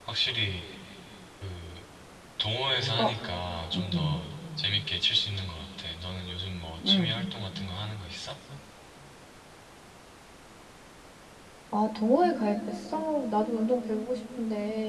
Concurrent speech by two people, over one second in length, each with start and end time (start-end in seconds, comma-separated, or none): none